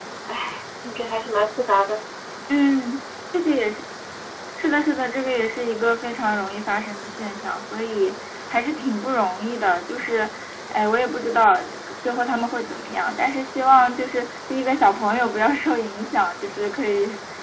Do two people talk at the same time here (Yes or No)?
No